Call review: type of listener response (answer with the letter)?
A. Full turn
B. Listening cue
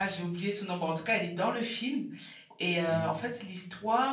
B